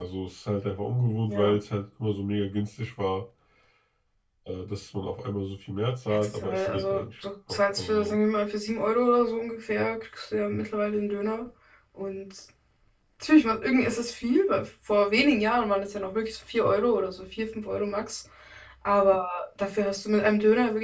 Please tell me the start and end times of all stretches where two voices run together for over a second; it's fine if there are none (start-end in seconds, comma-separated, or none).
6.1-8.2